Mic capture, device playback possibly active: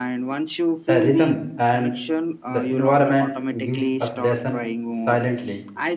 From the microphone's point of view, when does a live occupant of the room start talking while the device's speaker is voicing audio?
1 s

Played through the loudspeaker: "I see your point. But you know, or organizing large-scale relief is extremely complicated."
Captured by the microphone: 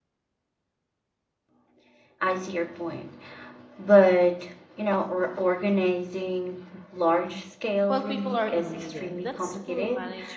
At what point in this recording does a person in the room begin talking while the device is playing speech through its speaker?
8 s

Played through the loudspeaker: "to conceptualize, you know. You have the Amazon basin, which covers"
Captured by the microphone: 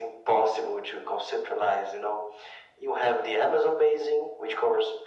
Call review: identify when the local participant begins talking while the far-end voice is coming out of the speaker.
none

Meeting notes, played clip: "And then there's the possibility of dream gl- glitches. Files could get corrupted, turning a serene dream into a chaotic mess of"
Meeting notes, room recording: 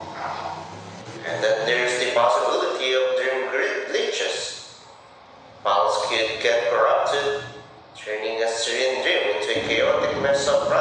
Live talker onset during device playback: none

